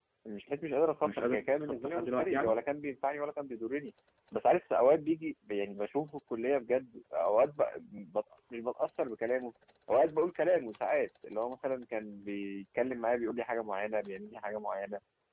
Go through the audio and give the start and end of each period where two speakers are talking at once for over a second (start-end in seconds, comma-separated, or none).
1.0-2.6